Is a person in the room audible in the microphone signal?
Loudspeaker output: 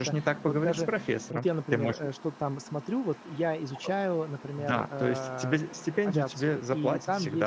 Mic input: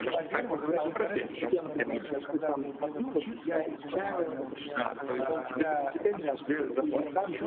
Yes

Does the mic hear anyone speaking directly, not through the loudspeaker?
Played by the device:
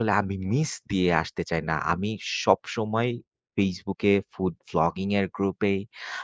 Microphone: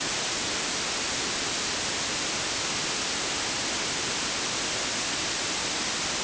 No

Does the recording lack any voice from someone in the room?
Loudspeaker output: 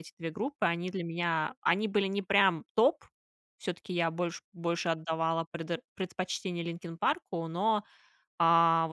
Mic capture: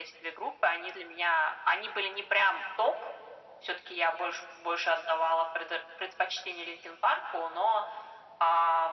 Yes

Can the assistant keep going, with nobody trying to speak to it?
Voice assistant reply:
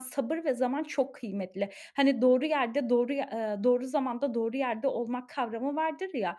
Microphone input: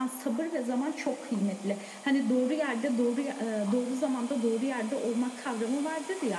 Yes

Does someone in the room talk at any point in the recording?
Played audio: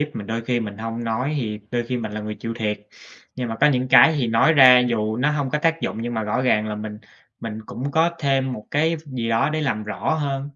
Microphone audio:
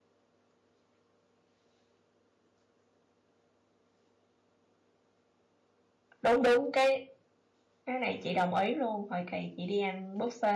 Yes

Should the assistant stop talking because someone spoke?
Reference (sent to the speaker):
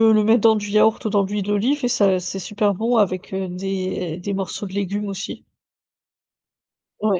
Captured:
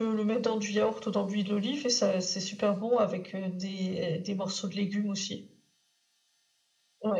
No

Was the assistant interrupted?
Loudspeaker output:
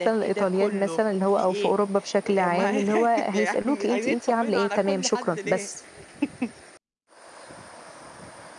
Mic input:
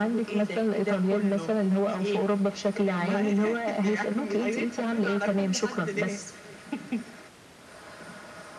No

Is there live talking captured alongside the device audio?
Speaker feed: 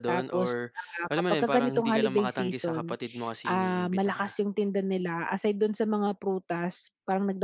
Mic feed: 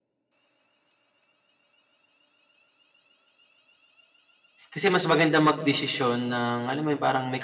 Yes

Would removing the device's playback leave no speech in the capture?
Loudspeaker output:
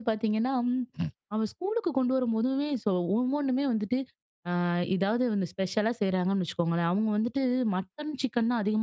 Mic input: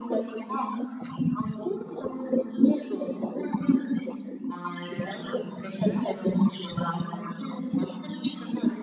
Yes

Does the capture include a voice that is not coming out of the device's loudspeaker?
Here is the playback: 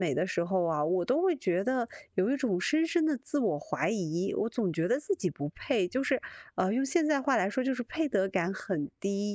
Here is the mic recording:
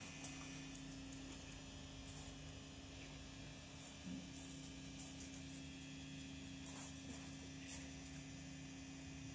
No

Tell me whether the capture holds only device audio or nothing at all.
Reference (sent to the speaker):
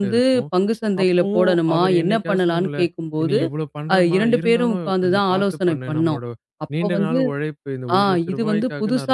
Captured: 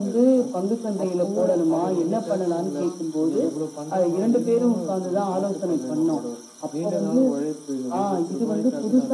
No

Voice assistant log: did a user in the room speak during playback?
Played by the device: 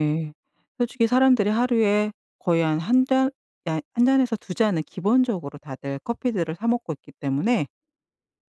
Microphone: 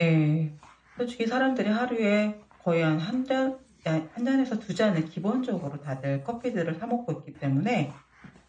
No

